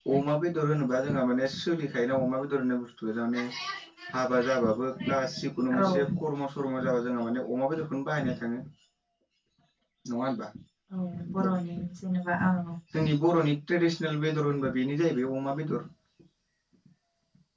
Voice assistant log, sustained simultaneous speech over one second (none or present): none